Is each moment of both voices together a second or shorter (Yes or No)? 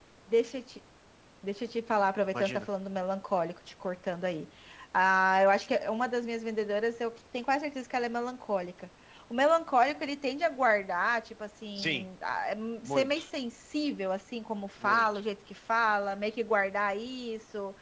Yes